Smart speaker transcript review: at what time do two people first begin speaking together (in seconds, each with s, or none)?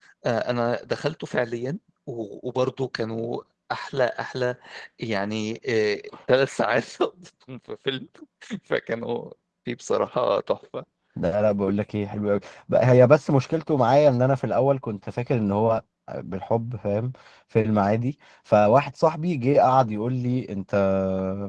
none